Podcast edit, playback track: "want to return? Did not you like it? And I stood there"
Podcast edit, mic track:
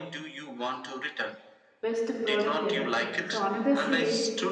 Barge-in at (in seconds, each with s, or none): 1.8 s